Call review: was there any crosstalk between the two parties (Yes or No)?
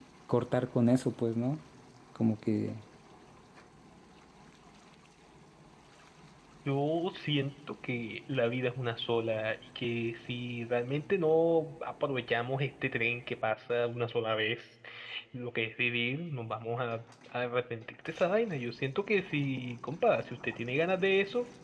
No